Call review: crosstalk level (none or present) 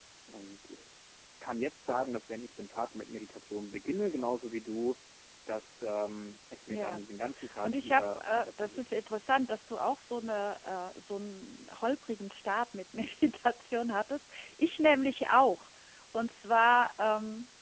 present